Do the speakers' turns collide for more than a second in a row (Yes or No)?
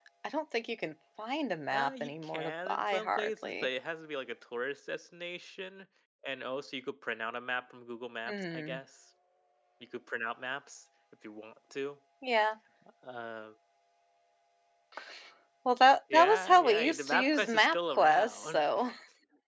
Yes